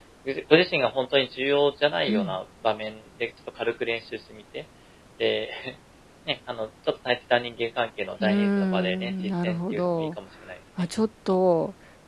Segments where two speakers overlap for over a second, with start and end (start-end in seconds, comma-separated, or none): 8.2-10.1